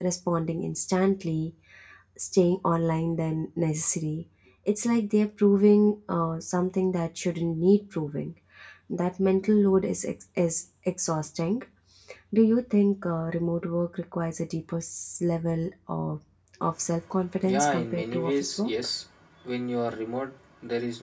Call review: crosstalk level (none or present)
present